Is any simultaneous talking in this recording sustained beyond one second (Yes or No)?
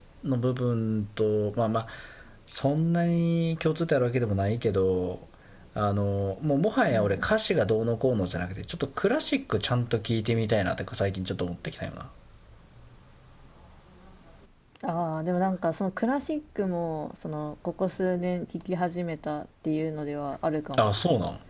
No